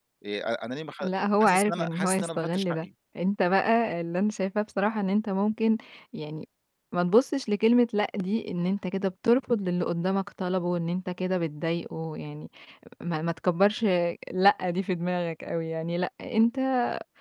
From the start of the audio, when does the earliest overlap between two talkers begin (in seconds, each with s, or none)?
1.4 s